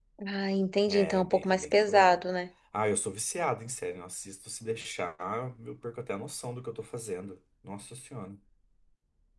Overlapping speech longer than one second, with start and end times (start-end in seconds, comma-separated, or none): 0.9-2.2